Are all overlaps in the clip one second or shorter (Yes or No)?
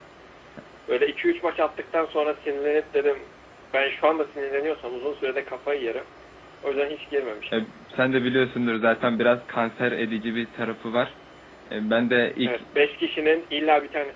Yes